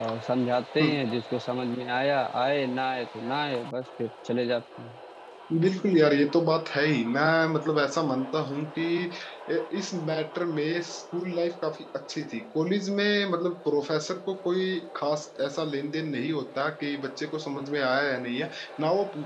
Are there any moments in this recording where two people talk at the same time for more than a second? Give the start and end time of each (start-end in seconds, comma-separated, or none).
none